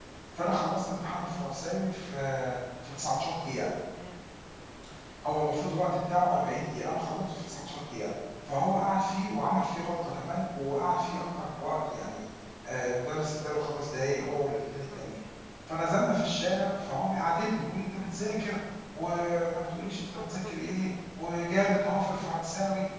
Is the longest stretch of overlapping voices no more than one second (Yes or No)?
Yes